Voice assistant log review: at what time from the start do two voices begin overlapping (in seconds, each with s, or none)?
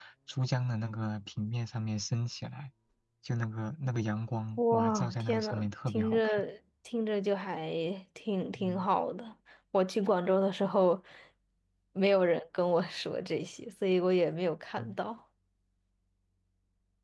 4.6 s